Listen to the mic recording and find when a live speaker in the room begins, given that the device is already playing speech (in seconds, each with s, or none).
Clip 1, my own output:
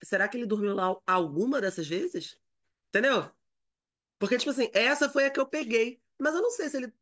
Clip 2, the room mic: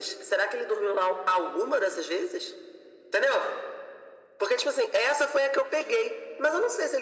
none